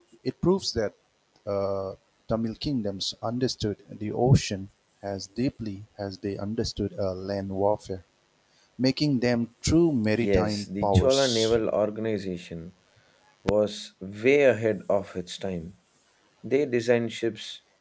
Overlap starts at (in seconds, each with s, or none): 10.2 s